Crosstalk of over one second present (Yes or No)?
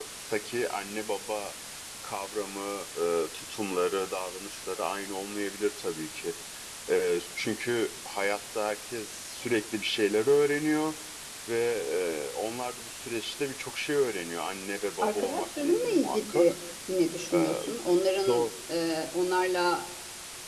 Yes